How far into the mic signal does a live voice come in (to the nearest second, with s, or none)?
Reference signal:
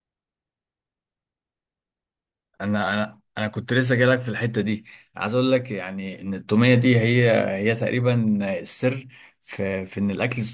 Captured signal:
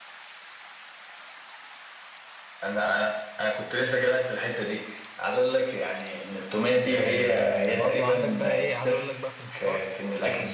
7 s